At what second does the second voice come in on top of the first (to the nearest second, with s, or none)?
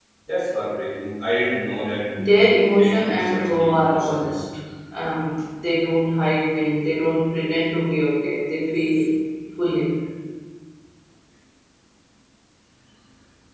3 s